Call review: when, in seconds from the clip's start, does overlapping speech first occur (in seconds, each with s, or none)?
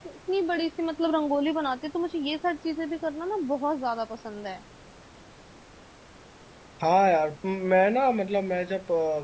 none